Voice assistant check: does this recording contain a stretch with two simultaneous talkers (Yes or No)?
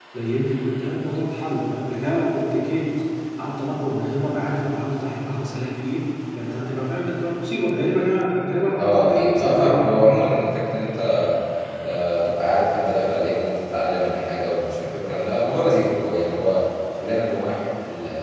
Yes